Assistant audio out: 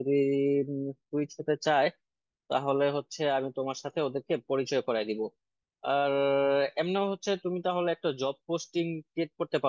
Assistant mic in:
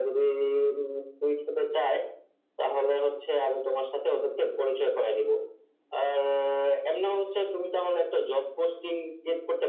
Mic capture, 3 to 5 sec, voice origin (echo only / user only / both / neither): echo only